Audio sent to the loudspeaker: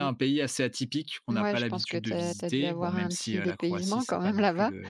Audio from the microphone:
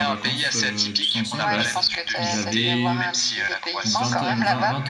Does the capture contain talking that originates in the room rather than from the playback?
Yes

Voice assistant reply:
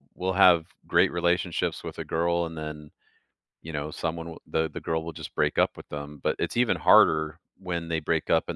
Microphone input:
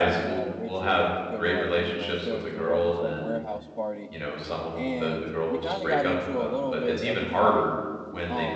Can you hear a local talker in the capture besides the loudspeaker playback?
Yes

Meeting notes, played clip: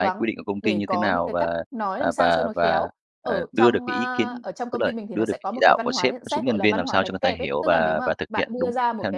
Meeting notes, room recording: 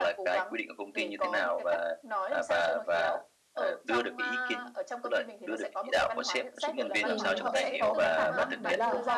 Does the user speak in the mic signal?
Yes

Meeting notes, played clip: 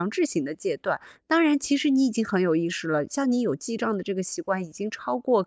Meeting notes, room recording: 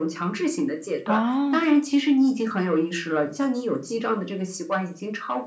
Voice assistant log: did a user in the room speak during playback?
Yes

